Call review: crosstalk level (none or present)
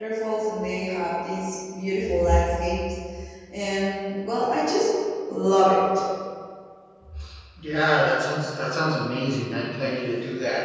none